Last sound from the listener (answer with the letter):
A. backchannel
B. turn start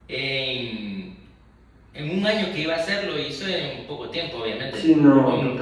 B